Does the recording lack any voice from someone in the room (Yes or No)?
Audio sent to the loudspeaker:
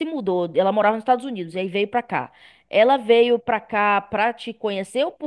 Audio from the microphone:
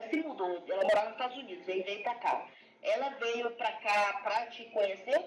Yes